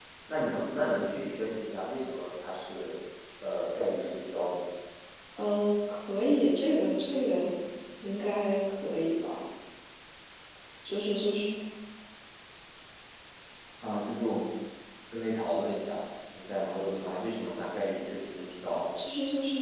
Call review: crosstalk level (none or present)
none